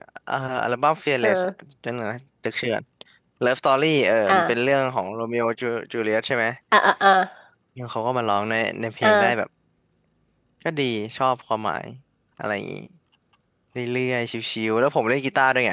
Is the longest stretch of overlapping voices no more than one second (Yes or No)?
Yes